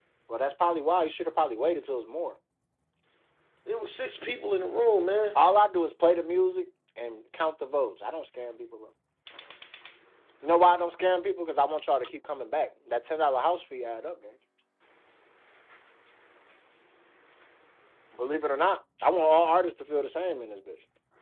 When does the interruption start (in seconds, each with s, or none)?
none